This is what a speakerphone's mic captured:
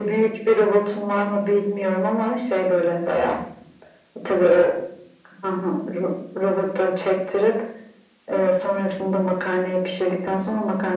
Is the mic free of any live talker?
Yes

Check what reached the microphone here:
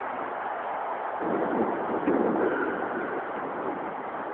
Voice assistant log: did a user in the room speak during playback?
No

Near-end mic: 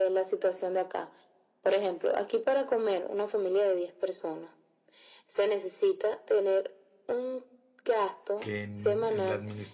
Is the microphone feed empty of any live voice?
No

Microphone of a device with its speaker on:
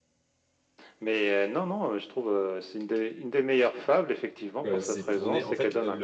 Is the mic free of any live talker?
No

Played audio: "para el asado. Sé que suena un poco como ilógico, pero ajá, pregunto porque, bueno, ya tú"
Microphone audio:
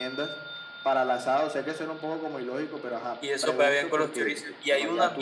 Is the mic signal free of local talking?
No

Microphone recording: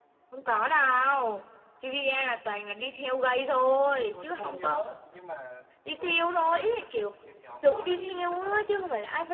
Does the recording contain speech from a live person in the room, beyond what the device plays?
Yes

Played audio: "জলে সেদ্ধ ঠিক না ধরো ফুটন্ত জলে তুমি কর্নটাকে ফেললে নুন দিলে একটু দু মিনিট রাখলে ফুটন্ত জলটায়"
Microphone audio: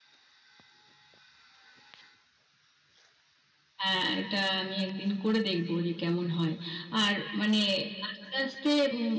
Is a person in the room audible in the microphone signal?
Yes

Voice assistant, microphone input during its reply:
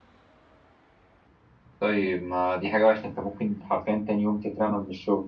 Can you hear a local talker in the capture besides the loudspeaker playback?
Yes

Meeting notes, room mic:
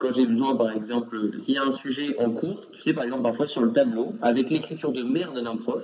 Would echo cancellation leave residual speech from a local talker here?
No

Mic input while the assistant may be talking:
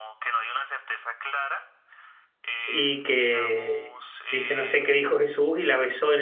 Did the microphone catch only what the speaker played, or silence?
No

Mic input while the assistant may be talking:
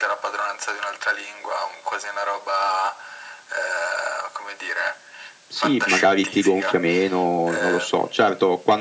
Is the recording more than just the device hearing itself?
Yes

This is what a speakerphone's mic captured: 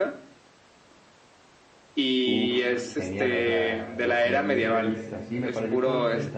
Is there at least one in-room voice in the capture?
Yes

